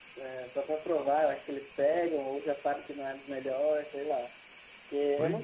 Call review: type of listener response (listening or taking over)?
listening